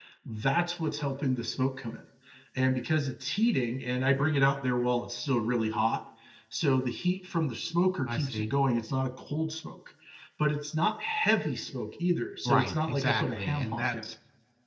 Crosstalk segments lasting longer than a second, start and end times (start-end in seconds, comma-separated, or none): 12.4-14.1